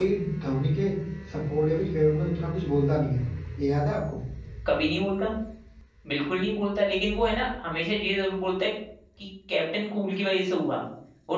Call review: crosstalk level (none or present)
none